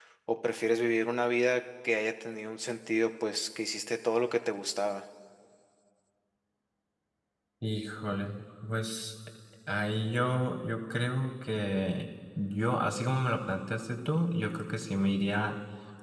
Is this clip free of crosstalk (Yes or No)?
Yes